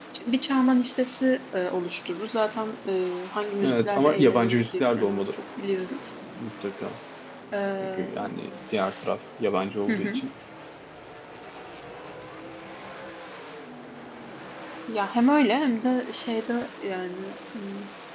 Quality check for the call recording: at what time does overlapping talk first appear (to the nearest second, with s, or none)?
4 s